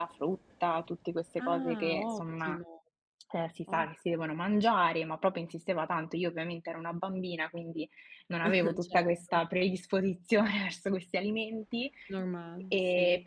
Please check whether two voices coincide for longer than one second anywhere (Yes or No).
Yes